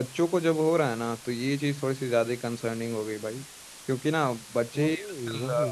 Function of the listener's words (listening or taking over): listening